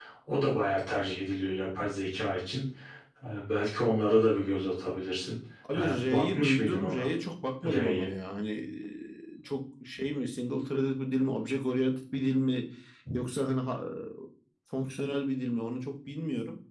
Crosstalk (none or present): present